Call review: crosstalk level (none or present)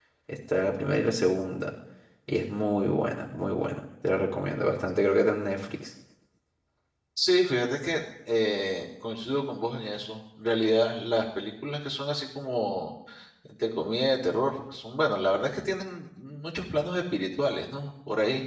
none